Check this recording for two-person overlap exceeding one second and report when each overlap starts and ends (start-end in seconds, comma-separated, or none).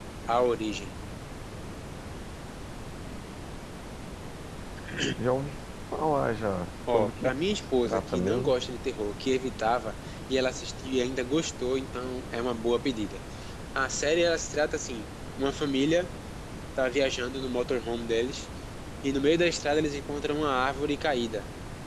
6.9-8.5